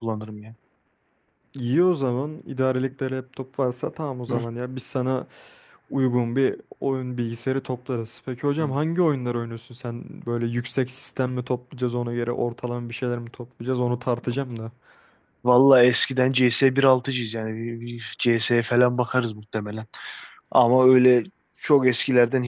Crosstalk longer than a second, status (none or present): none